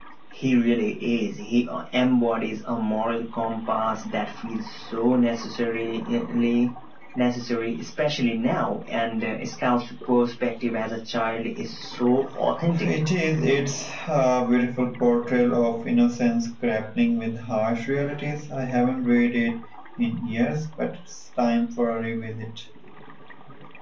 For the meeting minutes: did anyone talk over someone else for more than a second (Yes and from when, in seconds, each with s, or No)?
No